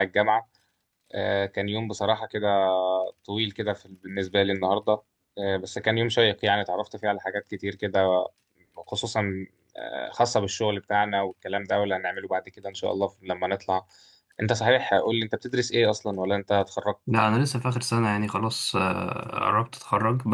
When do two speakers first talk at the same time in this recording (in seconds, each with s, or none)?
none